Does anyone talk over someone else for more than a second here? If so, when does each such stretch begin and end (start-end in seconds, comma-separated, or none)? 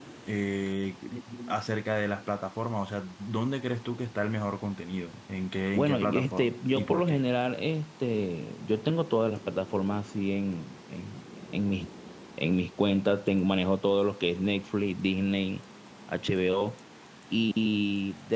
5.8-7.2